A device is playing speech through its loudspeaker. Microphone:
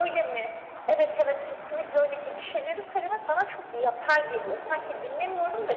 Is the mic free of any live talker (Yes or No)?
Yes